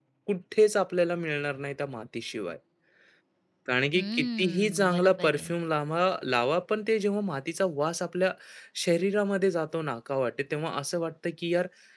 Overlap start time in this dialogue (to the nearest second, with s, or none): 4 s